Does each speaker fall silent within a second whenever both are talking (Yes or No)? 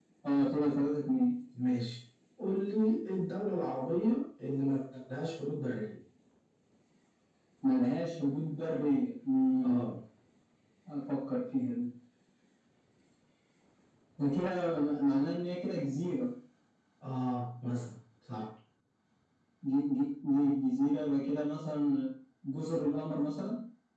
Yes